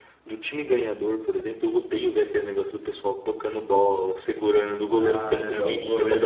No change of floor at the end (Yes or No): No